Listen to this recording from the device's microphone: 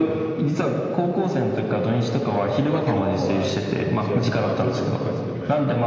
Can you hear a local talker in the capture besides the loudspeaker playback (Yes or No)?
Yes